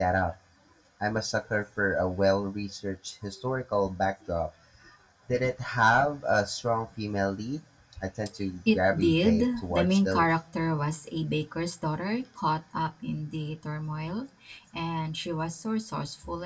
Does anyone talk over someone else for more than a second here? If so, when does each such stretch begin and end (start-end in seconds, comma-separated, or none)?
8.7-10.3